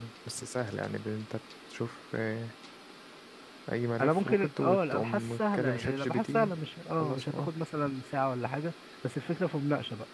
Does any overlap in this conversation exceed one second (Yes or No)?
Yes